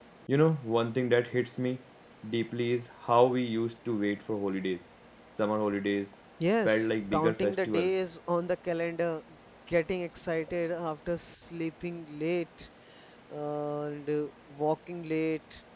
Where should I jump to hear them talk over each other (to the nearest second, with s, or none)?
7 s